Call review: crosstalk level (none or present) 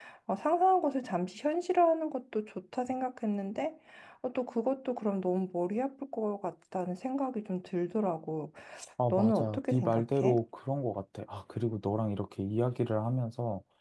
present